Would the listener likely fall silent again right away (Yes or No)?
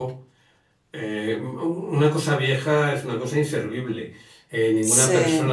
Yes